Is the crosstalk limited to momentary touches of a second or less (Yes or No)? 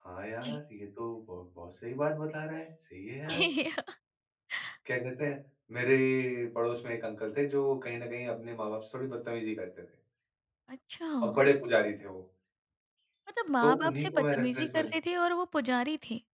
No